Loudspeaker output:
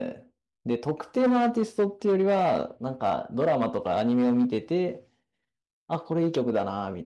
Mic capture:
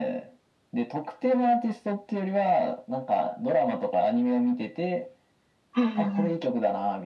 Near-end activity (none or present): present